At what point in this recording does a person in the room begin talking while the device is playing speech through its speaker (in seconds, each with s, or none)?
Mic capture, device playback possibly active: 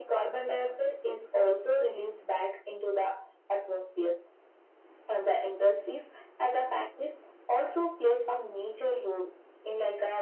none